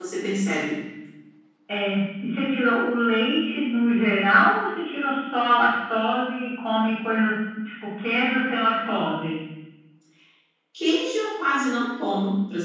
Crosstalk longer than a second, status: none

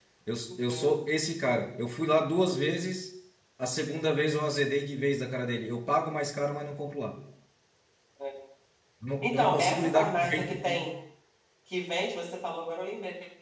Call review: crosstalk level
present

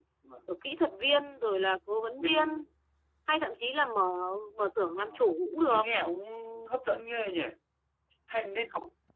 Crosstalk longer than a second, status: none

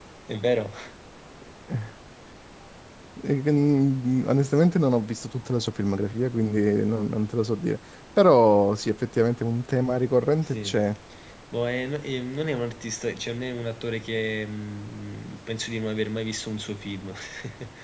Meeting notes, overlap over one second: none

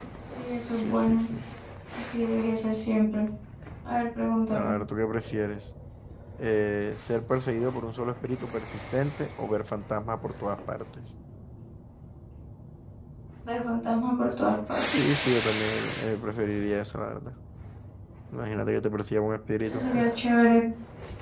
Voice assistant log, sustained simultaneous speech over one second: none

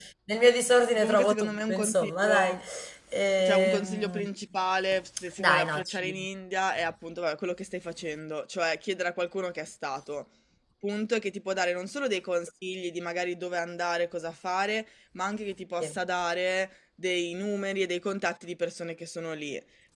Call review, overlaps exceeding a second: present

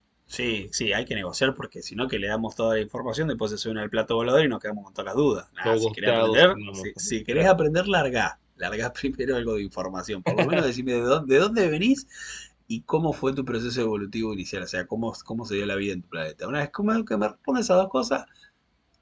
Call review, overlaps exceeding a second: present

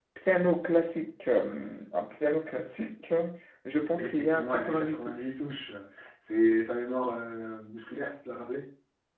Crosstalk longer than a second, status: present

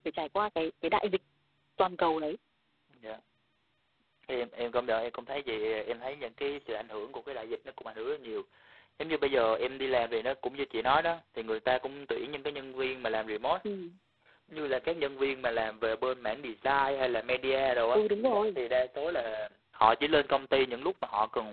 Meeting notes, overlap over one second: none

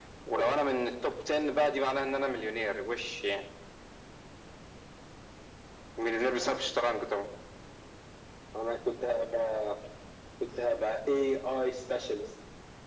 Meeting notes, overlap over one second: none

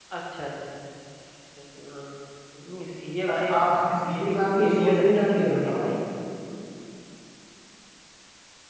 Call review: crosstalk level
present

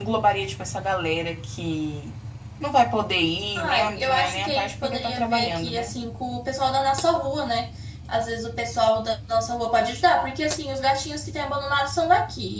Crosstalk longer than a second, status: present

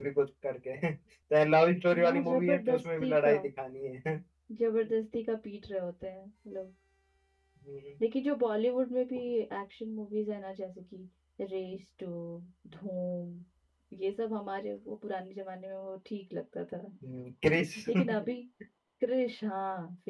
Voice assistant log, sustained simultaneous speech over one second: present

